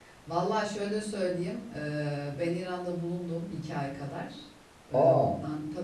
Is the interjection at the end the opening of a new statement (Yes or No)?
No